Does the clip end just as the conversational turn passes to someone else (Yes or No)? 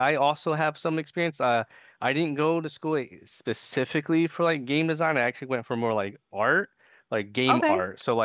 No